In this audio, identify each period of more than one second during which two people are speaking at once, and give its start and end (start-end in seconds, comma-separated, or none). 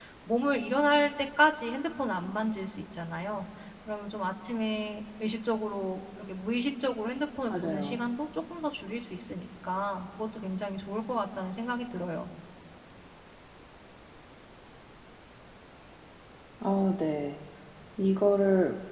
none